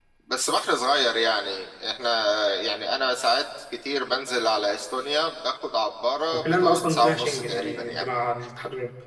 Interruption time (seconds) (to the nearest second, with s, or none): 6 s